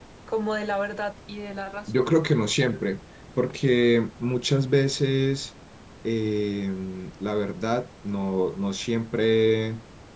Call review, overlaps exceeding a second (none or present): none